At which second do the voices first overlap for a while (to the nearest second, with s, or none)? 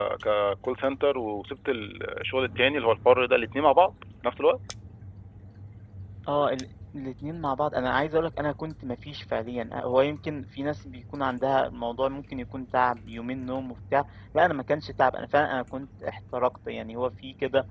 none